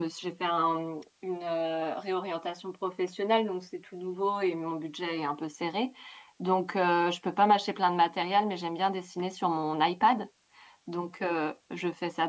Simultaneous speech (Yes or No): No